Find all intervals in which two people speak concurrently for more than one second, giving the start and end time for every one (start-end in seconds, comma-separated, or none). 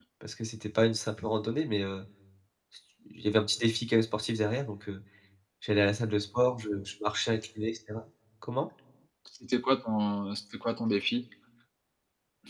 none